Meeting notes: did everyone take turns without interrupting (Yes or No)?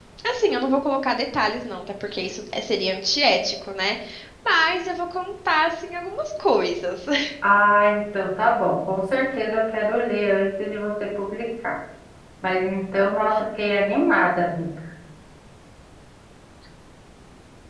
Yes